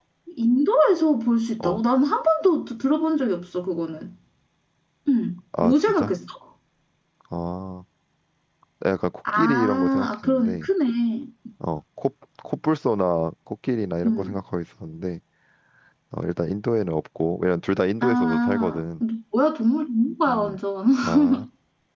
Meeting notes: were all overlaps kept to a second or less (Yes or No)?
No